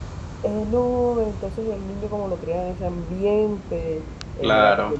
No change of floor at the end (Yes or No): Yes